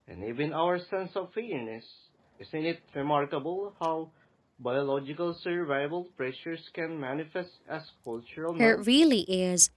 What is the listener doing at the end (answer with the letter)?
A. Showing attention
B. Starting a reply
B